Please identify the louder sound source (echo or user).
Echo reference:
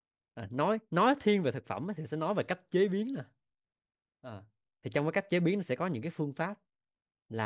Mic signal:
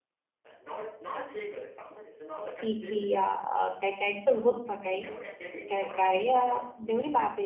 user